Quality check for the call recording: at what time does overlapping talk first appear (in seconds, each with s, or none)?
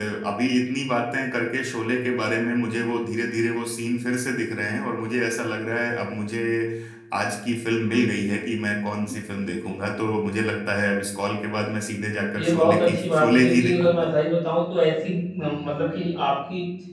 12.4 s